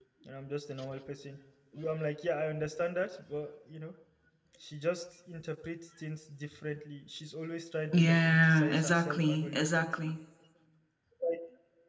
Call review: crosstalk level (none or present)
present